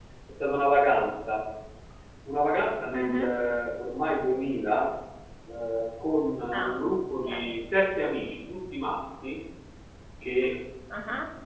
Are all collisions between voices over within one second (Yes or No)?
Yes